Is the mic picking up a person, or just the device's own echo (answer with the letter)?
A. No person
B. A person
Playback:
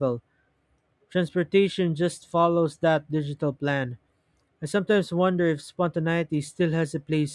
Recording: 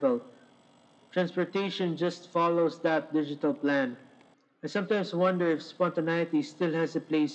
A